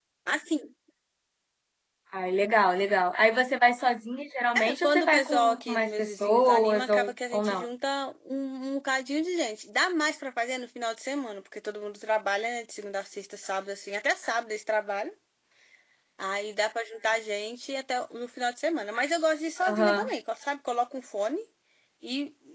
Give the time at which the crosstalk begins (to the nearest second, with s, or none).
5 s